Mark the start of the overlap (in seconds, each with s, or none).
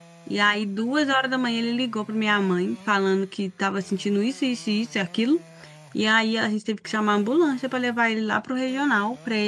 none